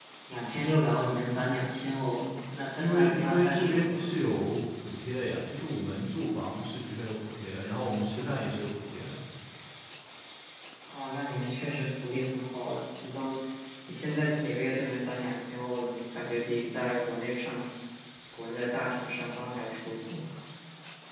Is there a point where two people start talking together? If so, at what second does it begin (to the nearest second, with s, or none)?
3 s